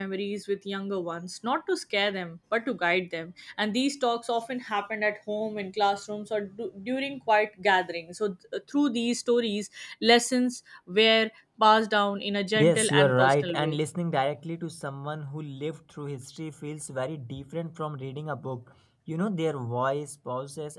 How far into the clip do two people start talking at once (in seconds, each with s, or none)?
12.6 s